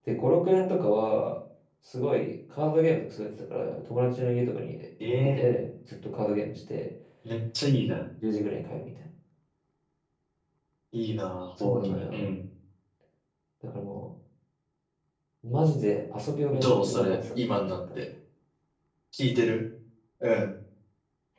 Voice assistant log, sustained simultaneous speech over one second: present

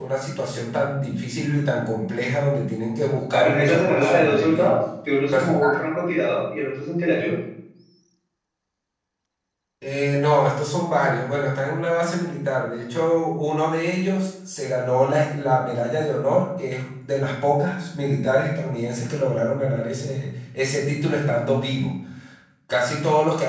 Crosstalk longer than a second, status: present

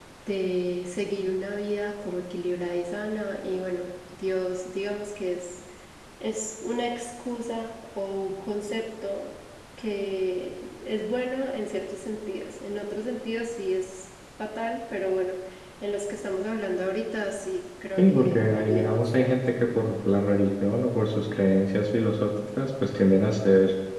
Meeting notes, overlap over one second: present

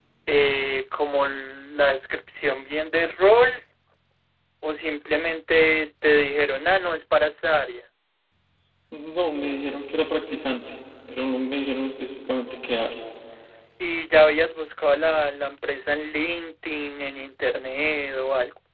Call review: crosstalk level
none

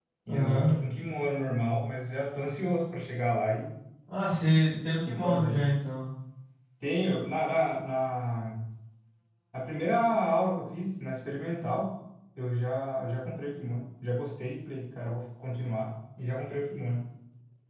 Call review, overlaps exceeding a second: none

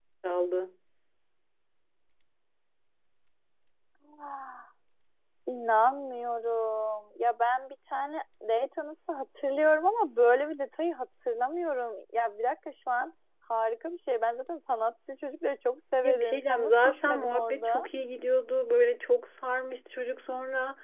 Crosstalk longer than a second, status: present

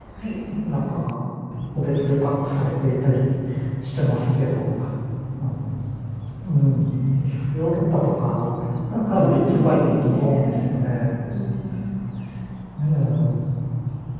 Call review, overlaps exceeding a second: present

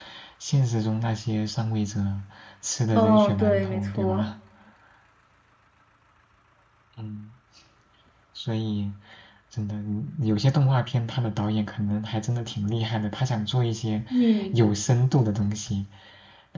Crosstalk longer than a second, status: present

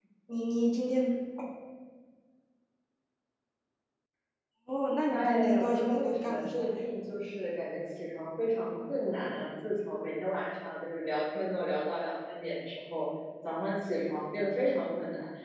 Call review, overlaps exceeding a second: present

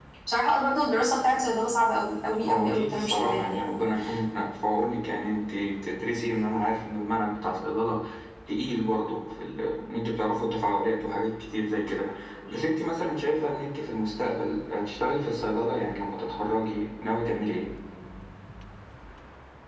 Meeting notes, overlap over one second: present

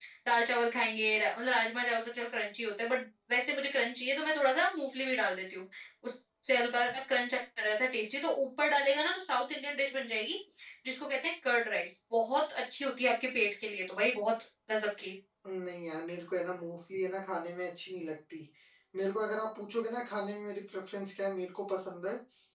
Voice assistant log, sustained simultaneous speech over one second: none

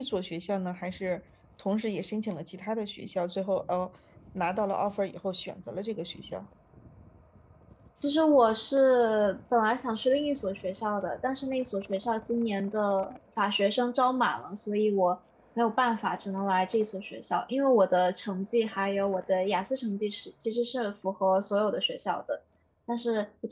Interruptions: none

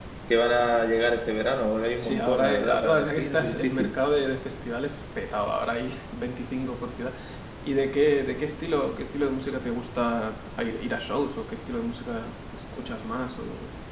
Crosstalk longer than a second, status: present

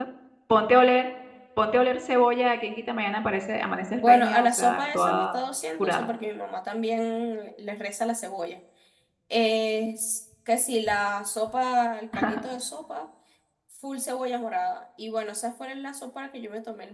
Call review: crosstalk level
present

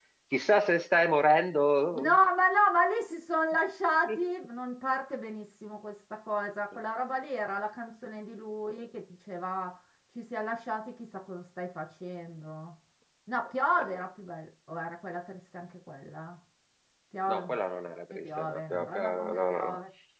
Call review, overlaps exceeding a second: present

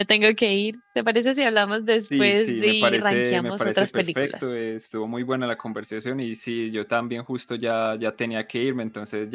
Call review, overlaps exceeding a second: present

